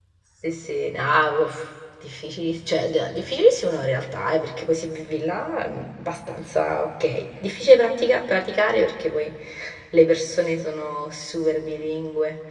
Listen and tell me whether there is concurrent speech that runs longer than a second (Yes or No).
No